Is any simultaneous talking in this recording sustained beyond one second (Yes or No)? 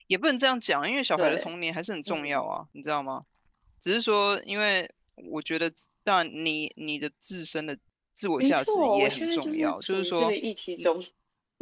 Yes